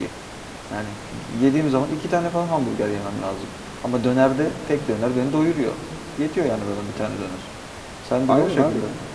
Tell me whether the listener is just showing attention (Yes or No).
No